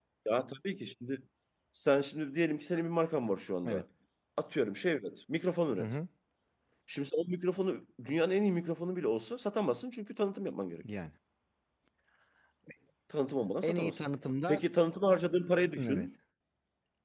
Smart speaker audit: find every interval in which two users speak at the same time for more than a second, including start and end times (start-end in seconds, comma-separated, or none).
none